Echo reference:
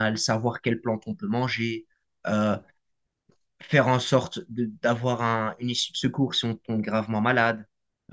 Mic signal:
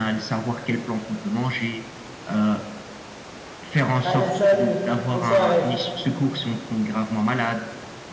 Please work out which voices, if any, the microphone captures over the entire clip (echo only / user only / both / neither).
both